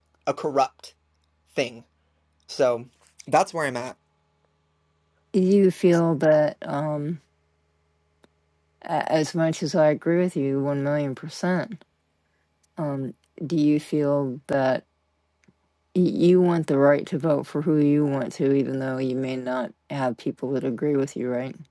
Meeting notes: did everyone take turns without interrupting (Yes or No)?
Yes